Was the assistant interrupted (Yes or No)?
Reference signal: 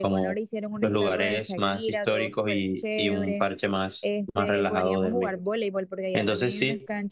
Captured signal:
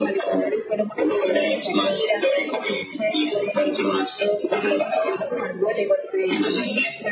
No